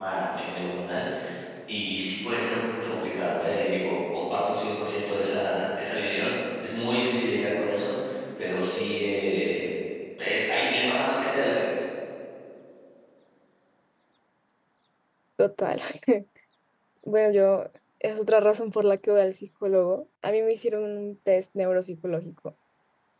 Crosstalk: none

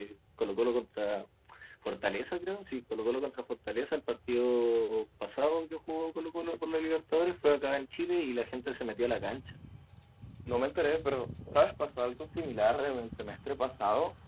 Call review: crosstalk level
none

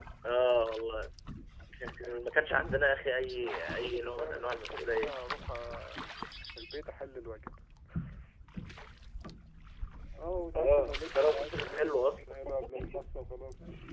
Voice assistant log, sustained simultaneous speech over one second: present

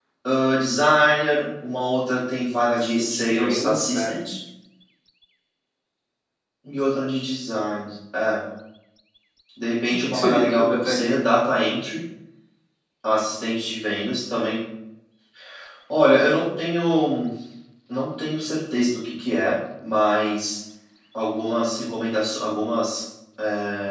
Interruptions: present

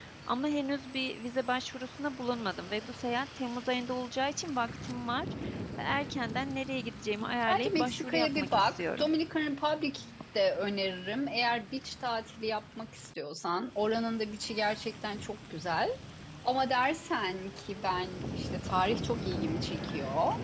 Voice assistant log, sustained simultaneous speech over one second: present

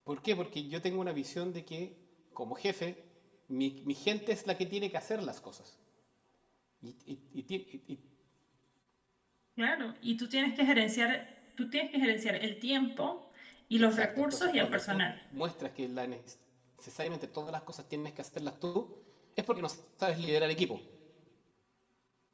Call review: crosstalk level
present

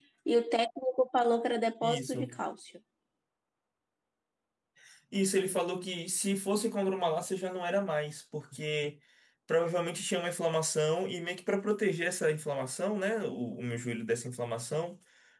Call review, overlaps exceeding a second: none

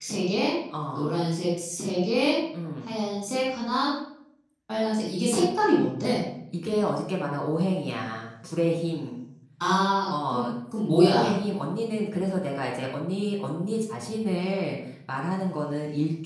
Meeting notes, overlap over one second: none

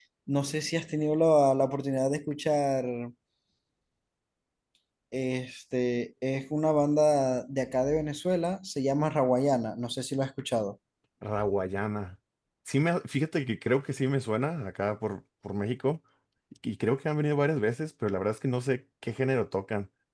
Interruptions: none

